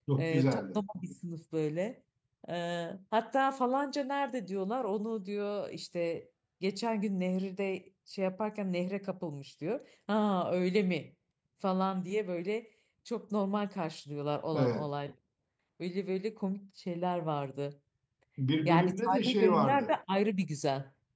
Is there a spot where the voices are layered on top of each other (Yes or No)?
Yes